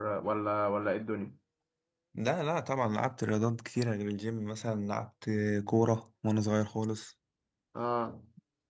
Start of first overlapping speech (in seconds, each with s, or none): none